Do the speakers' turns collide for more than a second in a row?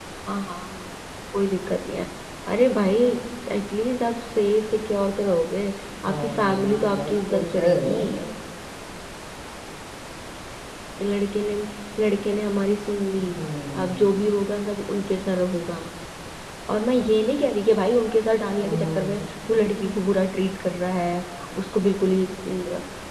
Yes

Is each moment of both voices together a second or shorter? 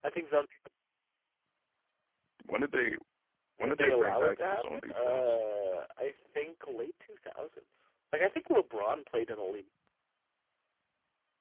No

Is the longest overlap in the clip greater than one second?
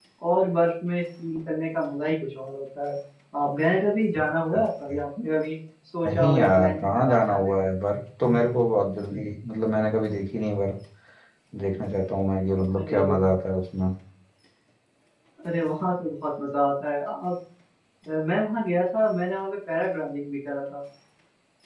Yes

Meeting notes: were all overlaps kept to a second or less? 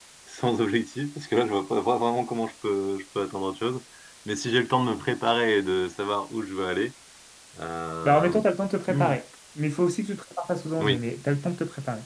Yes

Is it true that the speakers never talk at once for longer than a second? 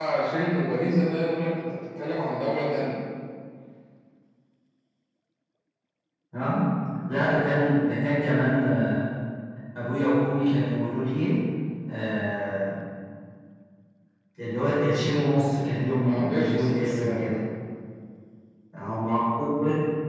No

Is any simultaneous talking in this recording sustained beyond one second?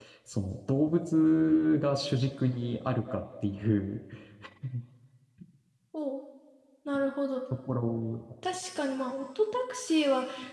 No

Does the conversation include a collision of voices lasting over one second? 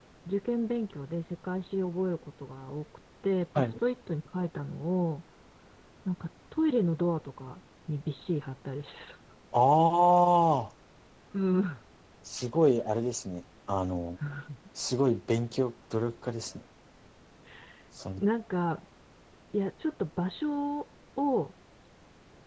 No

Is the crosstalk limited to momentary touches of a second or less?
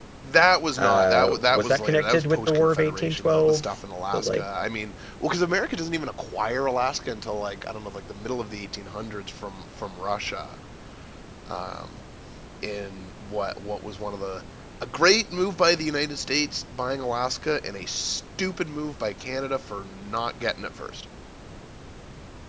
No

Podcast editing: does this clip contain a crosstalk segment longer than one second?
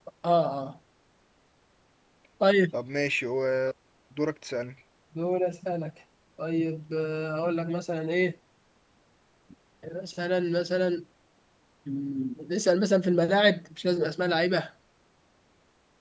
No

